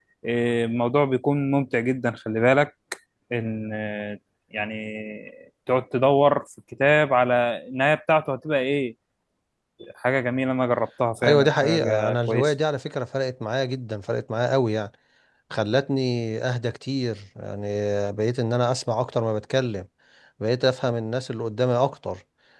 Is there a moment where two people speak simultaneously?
Yes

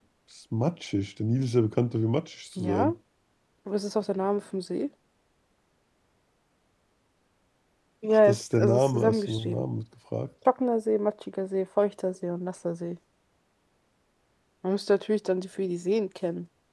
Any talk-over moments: Yes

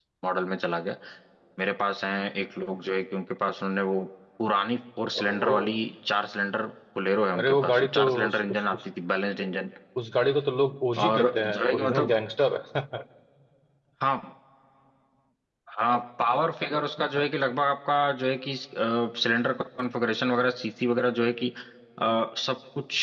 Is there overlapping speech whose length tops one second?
Yes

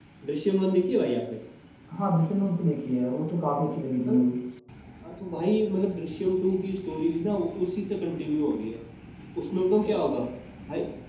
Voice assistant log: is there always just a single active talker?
Yes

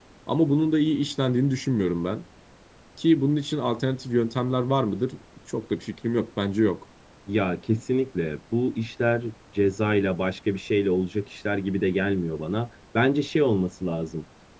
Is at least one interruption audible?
No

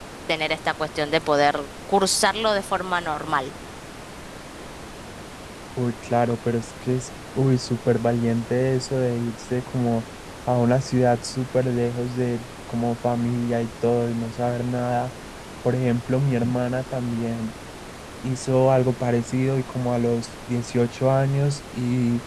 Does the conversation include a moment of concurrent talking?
No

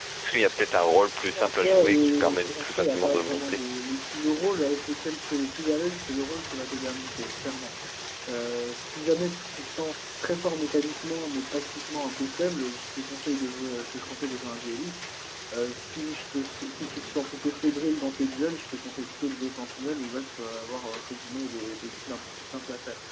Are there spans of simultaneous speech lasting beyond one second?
Yes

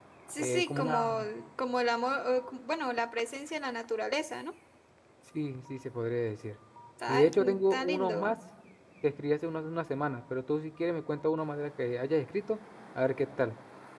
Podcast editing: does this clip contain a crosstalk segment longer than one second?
Yes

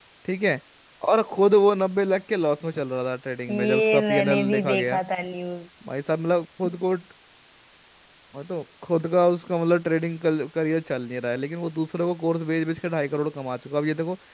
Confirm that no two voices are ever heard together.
No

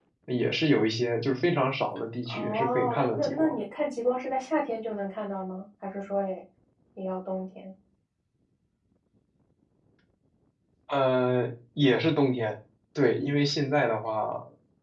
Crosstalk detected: Yes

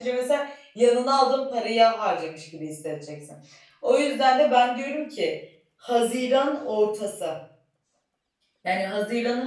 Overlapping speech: No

